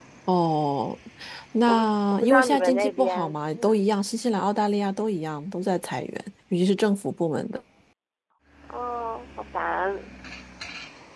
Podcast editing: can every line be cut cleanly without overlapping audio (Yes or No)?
No